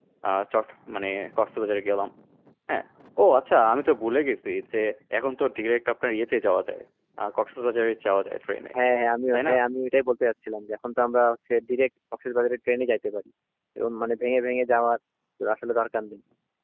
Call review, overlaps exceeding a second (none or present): none